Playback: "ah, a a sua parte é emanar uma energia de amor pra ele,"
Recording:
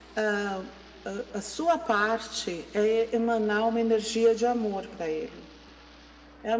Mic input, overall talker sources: echo only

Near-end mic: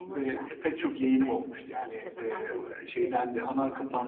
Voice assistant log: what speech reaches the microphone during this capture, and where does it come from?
both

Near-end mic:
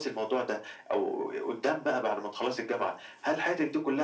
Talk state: echo only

